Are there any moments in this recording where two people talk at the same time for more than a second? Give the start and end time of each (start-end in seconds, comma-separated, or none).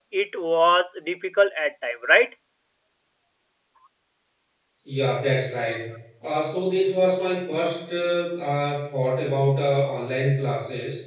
none